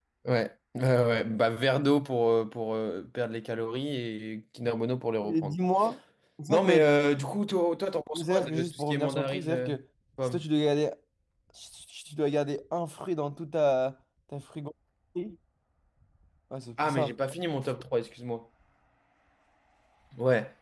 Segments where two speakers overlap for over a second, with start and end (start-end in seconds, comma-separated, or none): 8.1-9.7